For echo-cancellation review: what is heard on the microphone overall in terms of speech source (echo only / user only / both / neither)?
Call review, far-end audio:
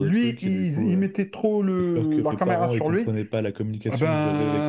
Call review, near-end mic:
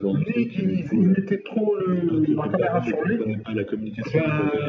echo only